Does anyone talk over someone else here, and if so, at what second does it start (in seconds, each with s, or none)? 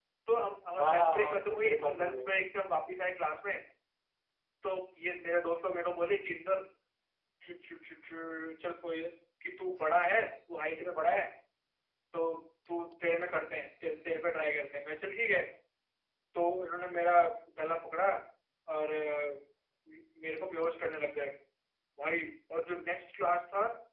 0.8 s